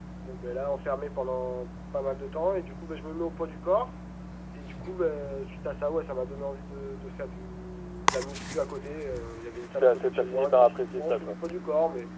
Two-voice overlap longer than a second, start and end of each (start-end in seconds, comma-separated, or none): 9.7-11.4